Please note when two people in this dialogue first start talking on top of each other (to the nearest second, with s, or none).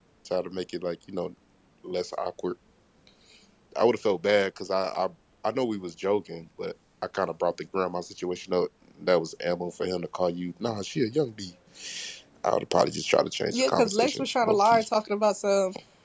14 s